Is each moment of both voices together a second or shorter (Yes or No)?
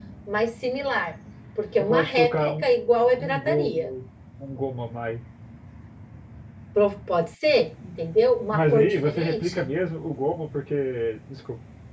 No